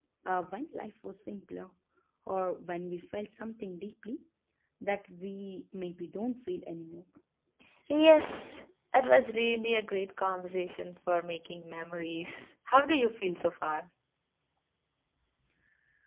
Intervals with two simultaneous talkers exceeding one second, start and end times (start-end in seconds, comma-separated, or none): none